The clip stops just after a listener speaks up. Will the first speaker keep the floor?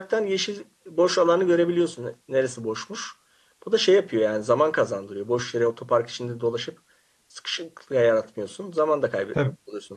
No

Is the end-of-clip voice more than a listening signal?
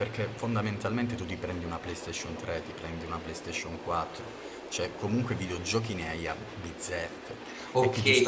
Yes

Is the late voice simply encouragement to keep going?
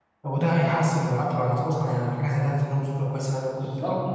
No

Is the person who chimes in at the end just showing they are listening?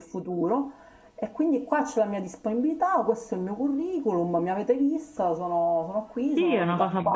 No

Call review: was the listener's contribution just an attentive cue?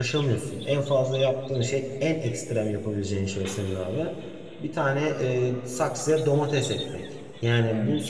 Yes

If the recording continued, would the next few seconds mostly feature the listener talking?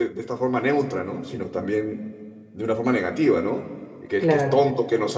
No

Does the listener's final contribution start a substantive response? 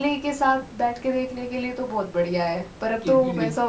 Yes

